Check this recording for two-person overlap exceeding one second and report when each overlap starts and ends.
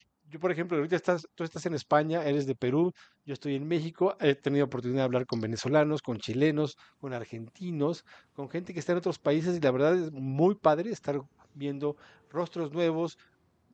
none

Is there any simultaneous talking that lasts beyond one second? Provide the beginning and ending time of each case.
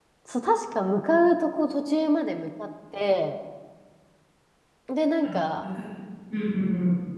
none

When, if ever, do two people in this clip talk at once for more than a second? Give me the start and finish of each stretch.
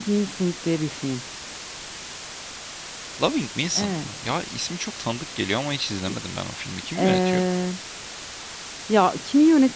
none

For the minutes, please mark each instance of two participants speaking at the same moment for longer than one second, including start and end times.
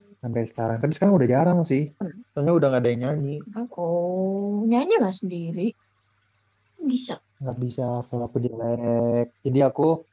none

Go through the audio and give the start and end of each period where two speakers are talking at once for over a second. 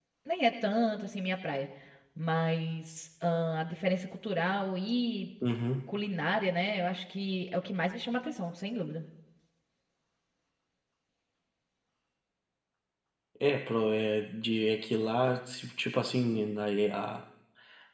none

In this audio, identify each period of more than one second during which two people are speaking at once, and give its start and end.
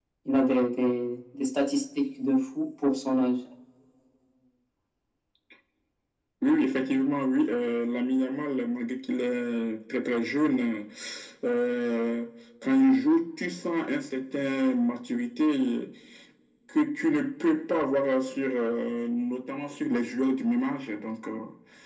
none

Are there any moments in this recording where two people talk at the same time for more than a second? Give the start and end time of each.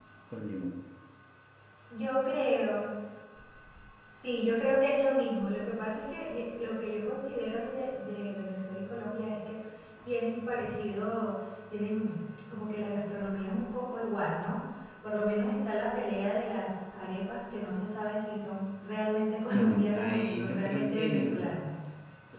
19.5-21.5

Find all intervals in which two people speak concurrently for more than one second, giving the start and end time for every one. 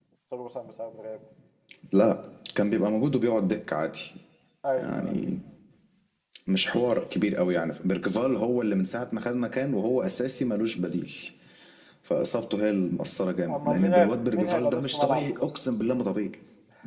13.6-15.4

